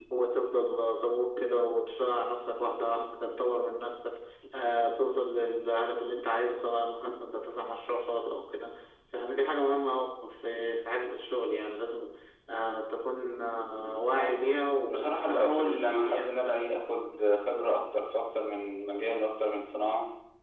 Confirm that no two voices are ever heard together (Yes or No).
No